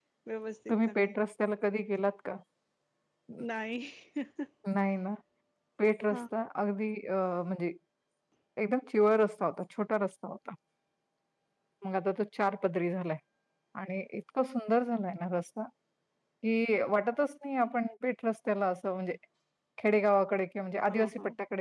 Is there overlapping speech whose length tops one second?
No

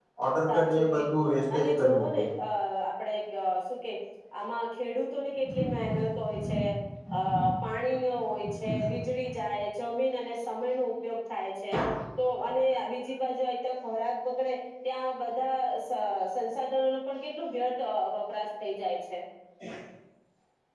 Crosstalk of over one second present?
Yes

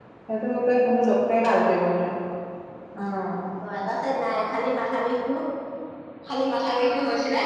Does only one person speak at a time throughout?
Yes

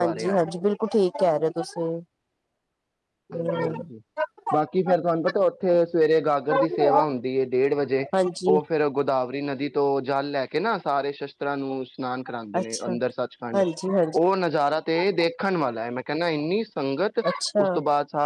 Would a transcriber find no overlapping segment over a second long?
Yes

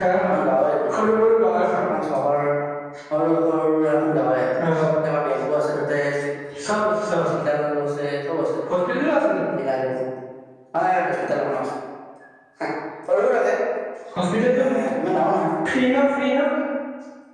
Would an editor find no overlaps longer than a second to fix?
Yes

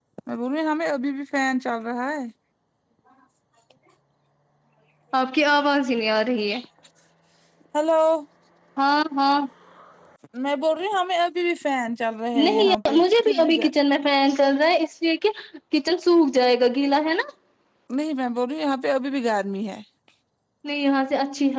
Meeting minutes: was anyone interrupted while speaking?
Yes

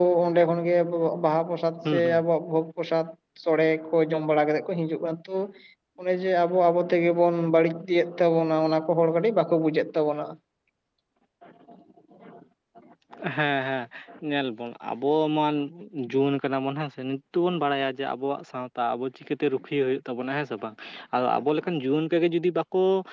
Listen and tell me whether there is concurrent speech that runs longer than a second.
No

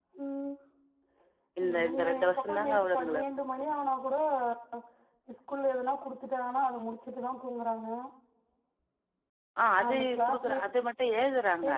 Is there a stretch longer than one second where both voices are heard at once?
Yes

